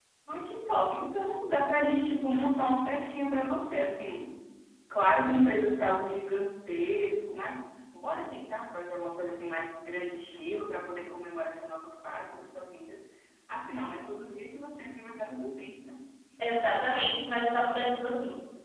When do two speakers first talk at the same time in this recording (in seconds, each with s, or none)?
none